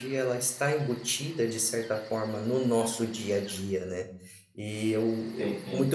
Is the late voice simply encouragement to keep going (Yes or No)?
Yes